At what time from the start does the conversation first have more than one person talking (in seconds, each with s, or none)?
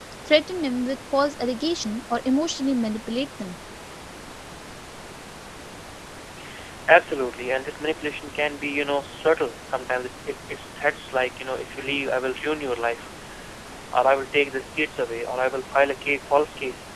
none